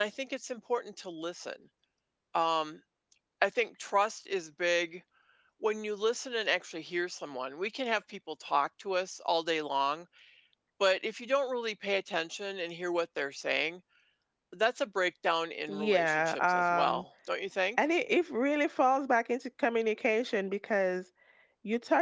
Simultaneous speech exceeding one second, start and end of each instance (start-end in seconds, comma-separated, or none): 15.7-17.0